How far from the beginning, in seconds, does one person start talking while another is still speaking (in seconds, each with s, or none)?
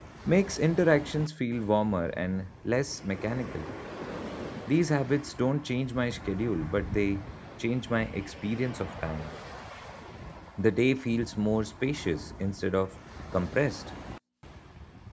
none